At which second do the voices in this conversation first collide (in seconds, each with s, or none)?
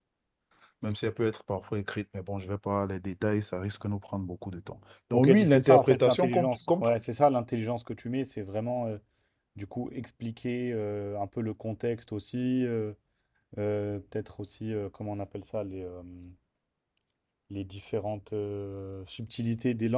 5.1 s